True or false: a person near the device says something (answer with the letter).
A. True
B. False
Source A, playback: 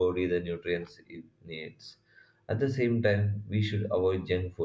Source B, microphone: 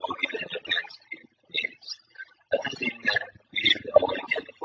B